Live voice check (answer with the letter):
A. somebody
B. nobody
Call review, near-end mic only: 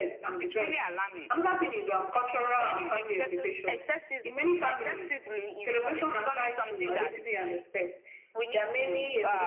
B